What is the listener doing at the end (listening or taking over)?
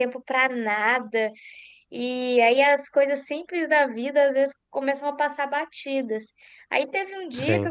listening